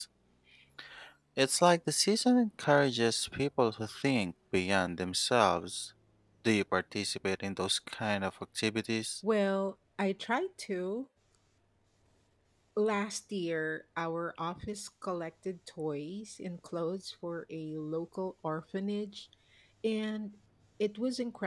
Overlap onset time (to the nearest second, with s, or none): none